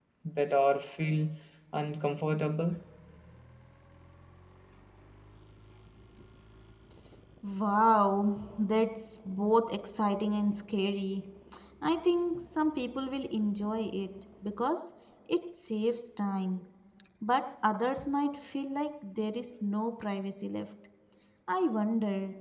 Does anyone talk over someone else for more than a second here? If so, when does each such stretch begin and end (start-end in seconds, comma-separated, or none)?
none